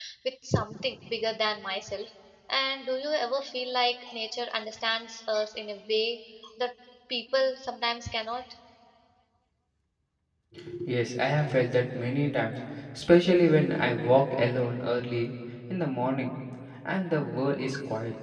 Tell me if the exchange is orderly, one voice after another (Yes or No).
Yes